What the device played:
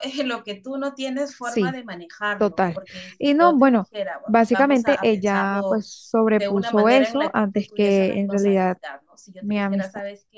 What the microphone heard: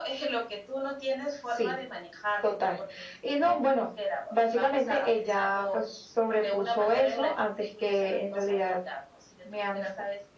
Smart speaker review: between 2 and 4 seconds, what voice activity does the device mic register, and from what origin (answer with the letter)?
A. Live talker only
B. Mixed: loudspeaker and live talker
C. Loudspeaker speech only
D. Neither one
C